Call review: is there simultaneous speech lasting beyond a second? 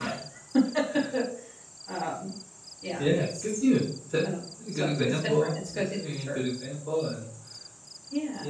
Yes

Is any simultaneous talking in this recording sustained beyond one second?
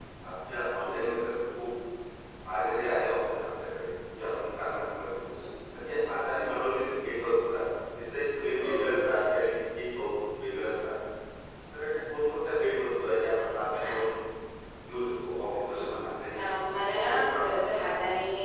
Yes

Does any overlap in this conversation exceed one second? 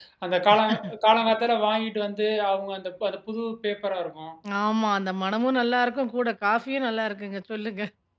No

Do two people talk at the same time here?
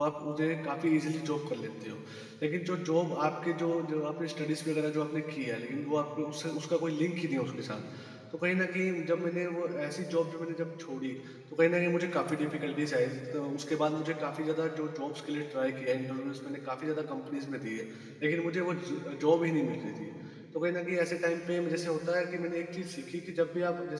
No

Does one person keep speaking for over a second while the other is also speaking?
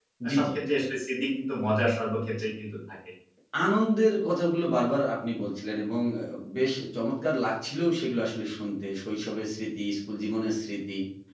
No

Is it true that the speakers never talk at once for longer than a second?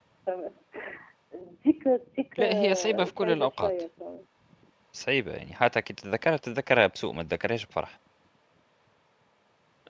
No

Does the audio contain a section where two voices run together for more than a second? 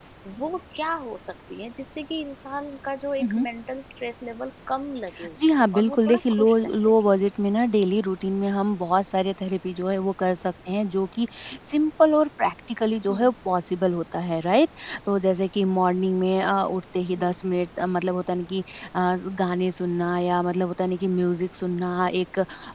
Yes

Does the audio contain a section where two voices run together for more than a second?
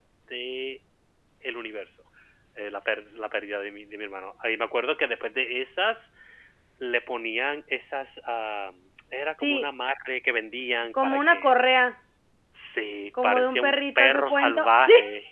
Yes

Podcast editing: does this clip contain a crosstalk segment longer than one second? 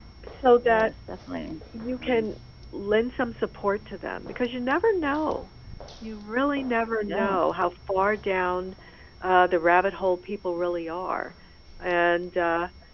No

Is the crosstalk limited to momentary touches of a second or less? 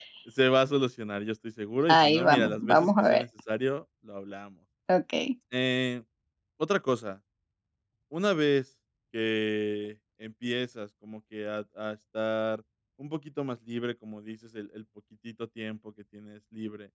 No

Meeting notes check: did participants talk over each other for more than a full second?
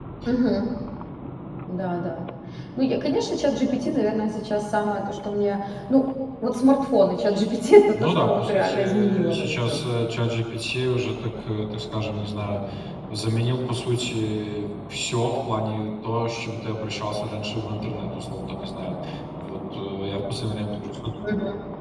Yes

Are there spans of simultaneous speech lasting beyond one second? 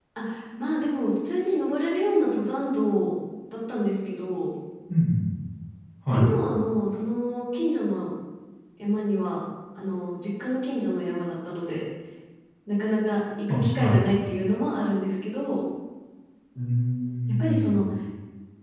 No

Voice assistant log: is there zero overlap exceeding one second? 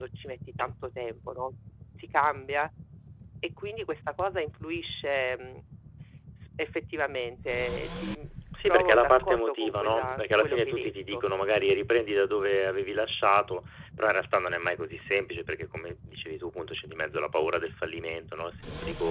No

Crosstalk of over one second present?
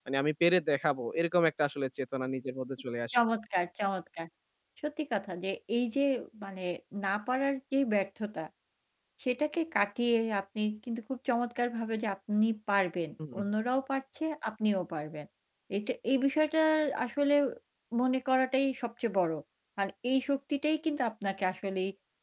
No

